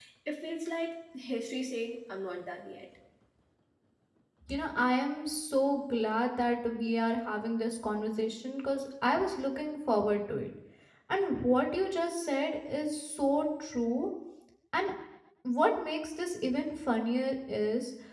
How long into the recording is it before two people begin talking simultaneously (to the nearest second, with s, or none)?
none